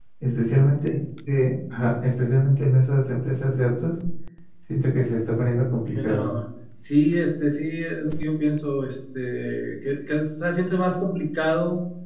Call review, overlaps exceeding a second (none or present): none